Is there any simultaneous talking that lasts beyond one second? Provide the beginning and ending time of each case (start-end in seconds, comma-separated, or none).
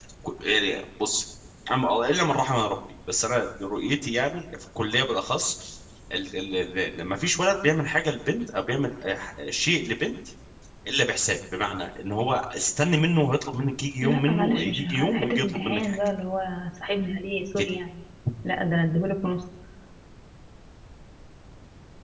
14.0-16.0